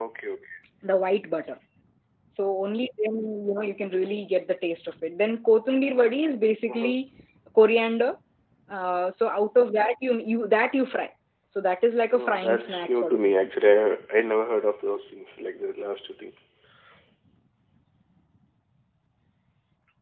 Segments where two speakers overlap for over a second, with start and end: 12.1-13.5

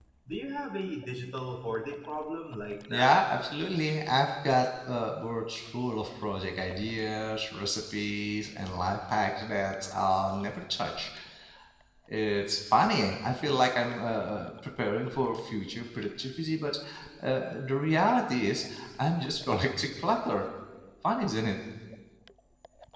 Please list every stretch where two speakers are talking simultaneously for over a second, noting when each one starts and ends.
none

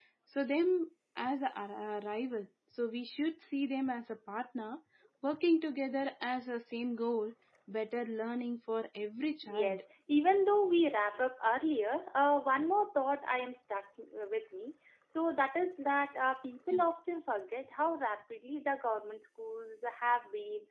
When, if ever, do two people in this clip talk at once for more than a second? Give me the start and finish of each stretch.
none

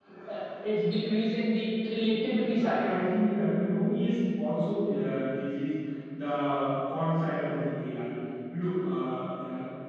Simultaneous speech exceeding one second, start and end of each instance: none

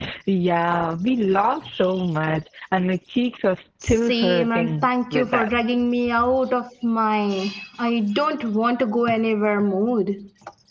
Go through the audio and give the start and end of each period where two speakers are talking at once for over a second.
3.8-5.5

